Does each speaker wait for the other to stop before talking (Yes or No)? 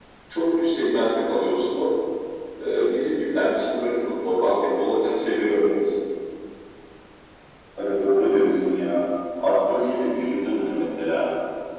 Yes